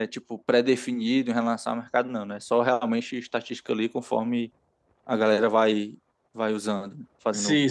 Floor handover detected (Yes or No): Yes